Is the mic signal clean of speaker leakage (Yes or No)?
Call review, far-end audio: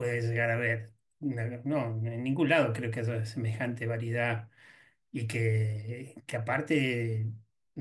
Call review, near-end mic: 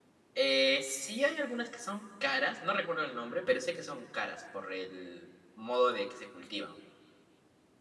Yes